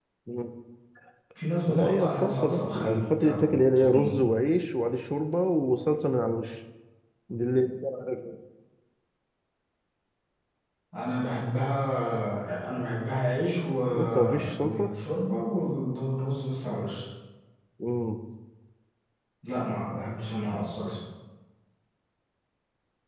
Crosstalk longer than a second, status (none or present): present